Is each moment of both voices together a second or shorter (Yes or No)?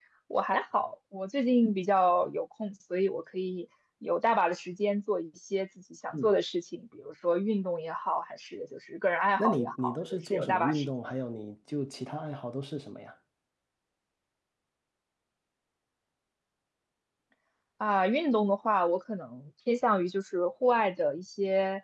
No